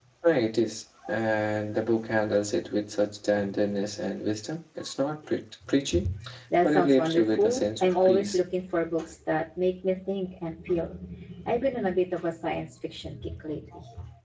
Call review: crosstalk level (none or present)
present